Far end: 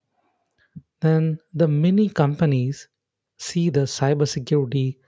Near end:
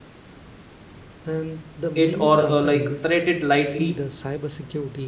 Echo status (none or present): present